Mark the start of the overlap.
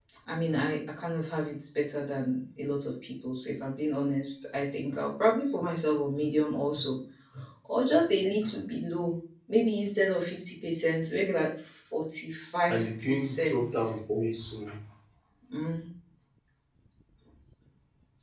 13 s

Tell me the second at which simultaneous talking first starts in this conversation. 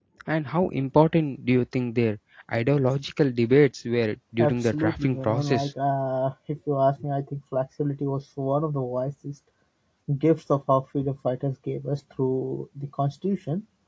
4 s

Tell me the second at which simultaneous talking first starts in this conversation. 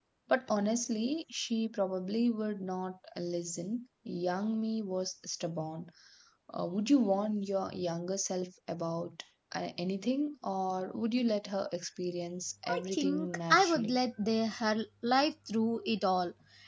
13 s

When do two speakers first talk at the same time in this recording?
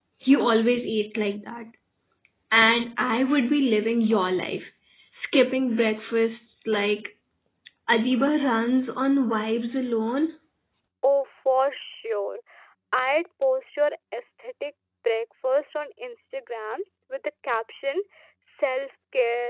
none

